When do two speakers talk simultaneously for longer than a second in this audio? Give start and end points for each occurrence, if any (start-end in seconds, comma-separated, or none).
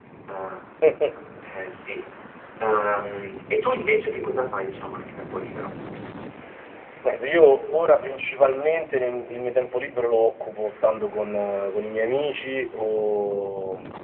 none